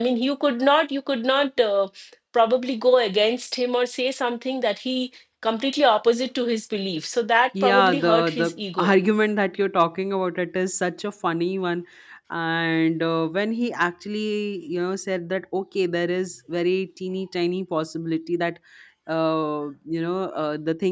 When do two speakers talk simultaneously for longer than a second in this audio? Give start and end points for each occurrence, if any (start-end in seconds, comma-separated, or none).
7.6-8.9